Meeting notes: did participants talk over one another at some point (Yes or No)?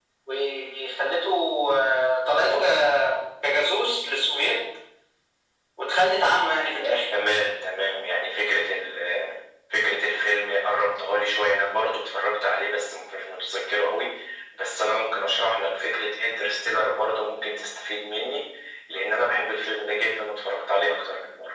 No